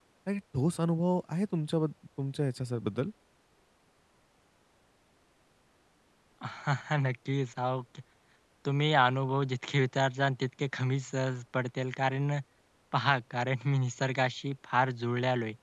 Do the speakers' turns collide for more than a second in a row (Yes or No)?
No